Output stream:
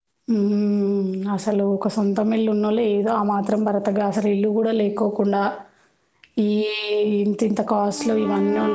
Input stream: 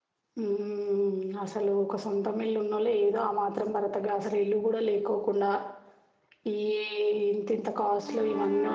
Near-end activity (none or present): none